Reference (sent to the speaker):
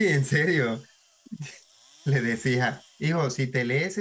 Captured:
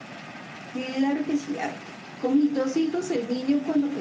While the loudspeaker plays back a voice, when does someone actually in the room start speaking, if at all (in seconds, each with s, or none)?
0.7 s